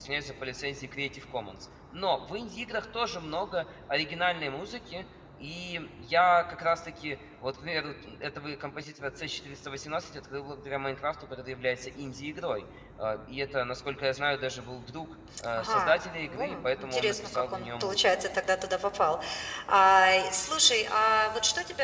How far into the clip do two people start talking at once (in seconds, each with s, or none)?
15.4 s